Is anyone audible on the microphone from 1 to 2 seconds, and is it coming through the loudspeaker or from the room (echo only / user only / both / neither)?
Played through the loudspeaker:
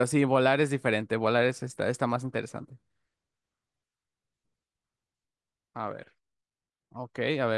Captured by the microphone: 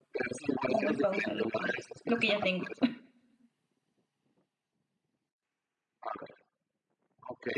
both